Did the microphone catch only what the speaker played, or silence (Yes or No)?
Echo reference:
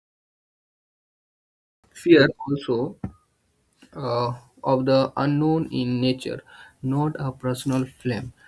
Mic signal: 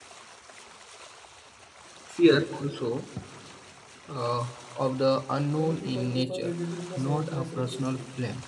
No